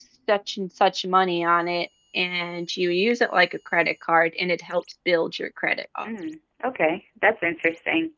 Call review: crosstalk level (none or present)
none